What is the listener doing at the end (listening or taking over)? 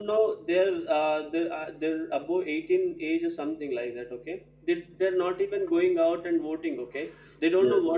listening